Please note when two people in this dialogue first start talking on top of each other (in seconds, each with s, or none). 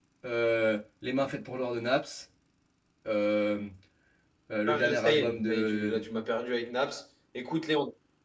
4.7 s